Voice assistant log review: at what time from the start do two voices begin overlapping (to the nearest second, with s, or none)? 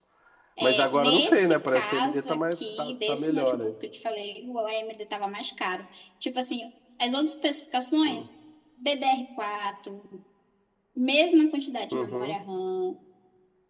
1 s